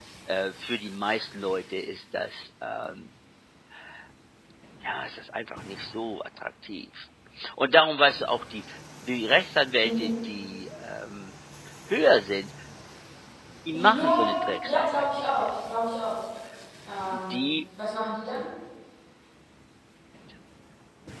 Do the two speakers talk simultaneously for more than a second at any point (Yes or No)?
Yes